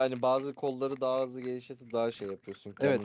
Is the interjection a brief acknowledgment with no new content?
No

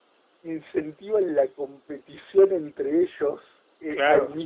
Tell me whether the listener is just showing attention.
Yes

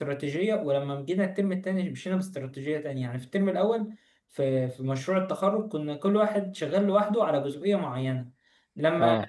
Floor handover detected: No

